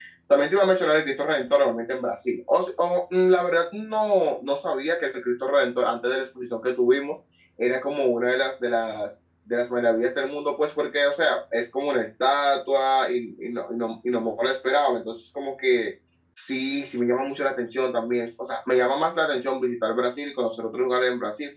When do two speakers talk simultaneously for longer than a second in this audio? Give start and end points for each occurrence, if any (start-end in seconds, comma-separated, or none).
none